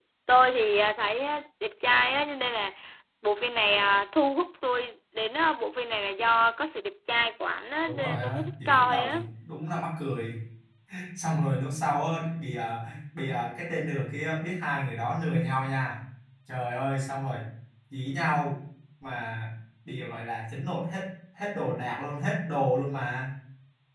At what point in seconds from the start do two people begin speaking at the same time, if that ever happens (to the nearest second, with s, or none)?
8 s